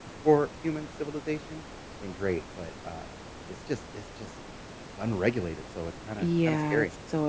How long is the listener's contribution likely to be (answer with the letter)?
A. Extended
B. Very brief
A